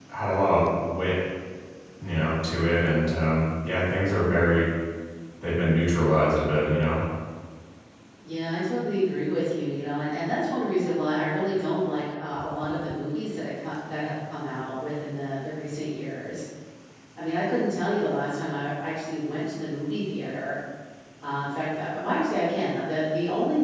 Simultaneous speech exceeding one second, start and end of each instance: none

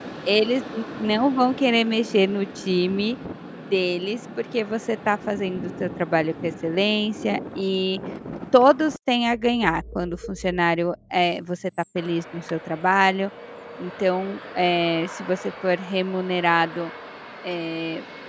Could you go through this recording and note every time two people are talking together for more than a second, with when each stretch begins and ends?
none

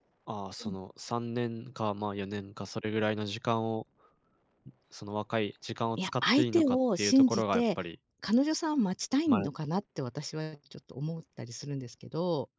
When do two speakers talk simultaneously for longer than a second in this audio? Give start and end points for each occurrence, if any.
6.0-7.6

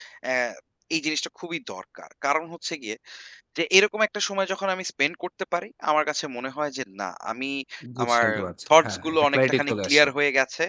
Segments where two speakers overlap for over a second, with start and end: 8.8-10.1

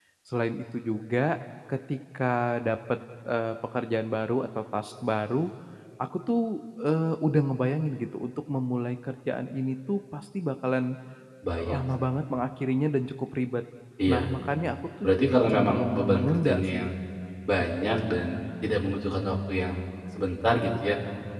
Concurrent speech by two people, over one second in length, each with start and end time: 15.0-16.9

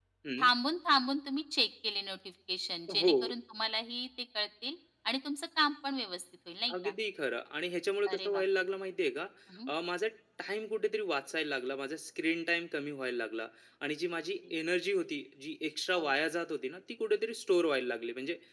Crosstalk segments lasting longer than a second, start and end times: none

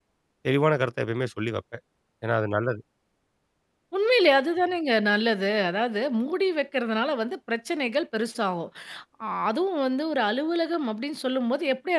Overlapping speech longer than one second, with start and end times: none

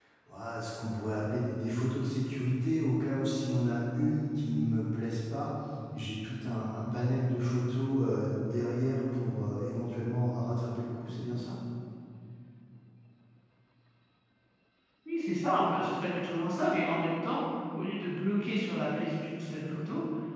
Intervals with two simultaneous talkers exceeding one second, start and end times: none

